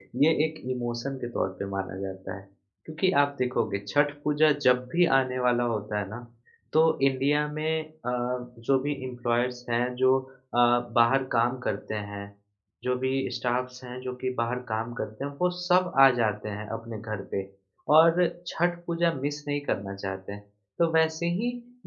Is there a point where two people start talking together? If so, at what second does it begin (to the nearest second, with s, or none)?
none